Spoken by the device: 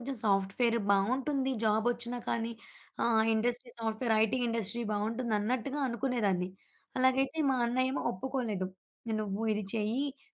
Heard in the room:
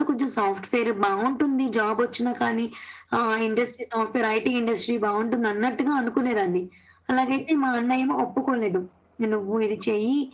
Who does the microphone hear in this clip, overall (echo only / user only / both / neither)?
echo only